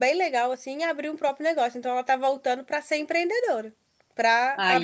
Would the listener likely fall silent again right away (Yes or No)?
Yes